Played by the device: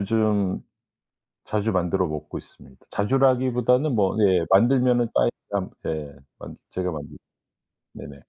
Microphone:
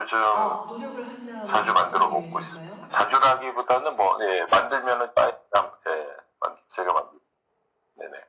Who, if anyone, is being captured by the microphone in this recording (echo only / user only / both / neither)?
both